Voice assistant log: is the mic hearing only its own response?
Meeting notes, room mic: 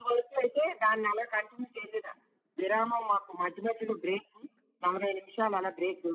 Yes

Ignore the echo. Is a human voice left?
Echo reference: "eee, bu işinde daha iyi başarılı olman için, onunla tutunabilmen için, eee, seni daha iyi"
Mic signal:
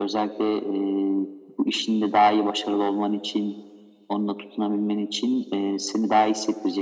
No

